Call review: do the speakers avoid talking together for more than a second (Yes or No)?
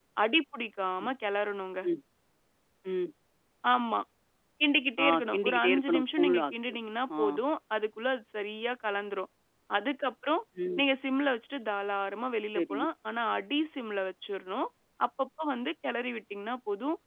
No